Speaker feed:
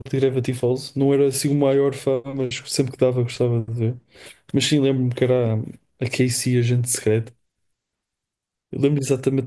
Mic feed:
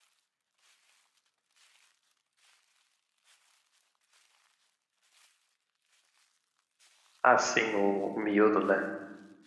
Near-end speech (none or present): present